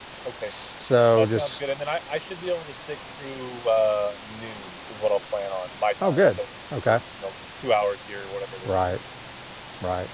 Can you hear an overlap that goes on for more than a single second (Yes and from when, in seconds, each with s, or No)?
No